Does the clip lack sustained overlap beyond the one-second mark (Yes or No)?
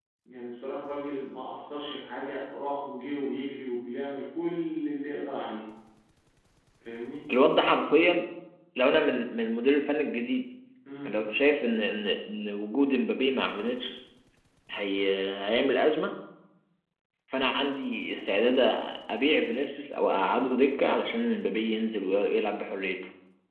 Yes